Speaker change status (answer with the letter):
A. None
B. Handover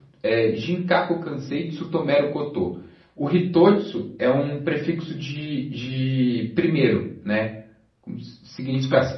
A